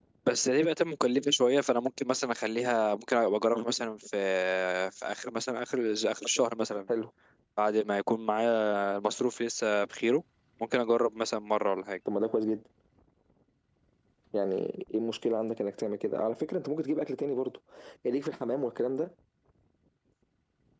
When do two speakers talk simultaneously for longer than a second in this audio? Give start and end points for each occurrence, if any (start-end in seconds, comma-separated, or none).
none